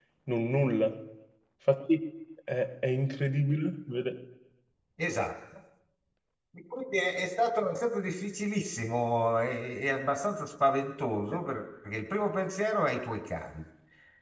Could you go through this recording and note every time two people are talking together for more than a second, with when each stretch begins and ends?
none

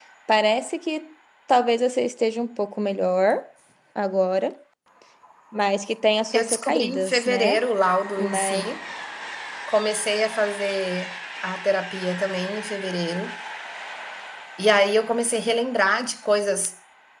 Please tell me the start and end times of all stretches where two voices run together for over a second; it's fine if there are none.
6.3-7.6

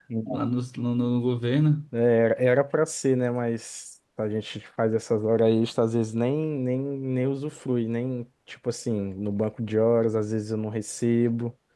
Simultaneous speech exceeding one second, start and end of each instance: none

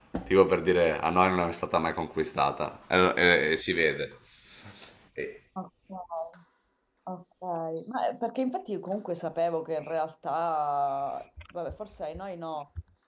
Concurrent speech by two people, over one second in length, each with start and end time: none

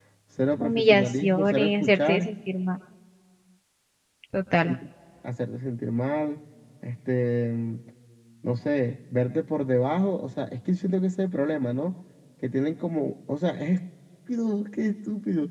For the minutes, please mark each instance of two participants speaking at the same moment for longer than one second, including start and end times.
0.6-2.3

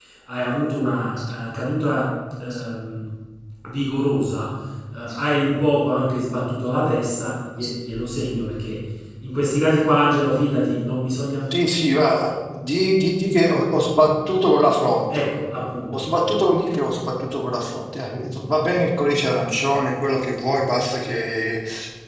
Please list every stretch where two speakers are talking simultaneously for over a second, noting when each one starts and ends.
none

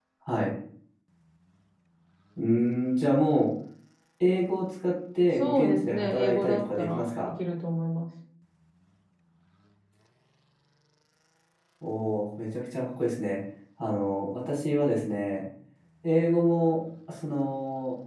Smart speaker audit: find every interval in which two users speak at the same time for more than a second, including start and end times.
5.4-7.4

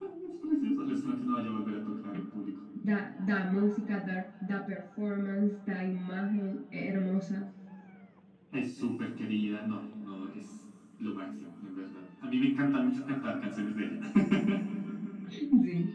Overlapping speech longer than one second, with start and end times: none

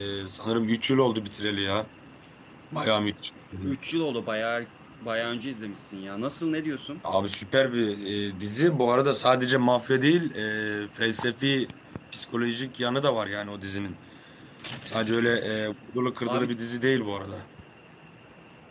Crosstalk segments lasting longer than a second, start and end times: none

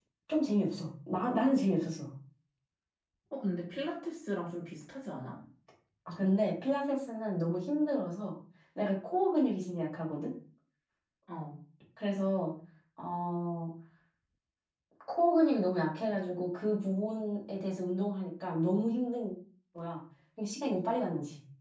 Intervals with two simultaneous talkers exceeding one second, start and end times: none

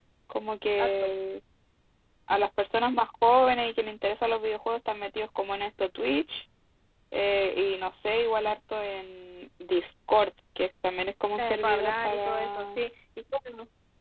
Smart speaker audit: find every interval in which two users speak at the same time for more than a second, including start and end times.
11.4-12.8

